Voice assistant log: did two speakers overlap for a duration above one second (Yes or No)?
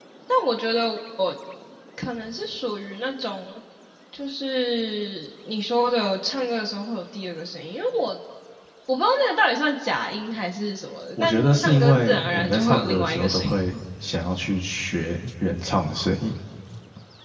Yes